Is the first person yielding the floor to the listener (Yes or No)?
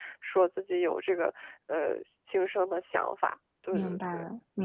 Yes